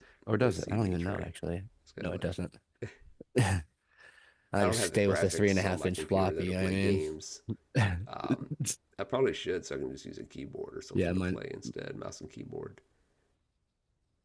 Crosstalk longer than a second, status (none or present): present